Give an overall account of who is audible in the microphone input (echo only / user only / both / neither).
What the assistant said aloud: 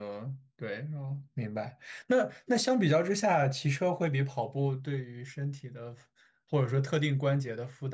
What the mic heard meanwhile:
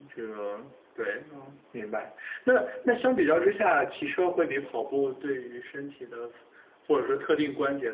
echo only